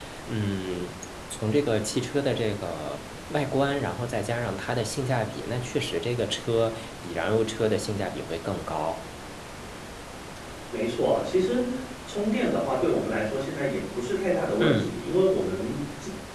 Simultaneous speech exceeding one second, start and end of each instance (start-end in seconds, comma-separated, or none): none